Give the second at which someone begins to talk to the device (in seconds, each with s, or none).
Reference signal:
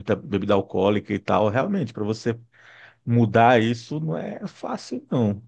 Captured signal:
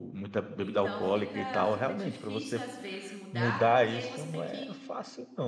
0.6 s